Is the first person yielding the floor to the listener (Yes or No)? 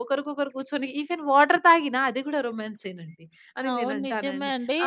Yes